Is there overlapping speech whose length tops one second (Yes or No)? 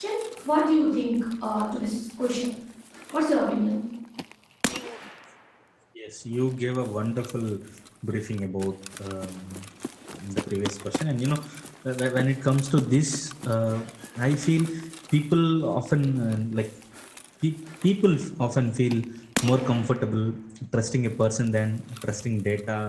No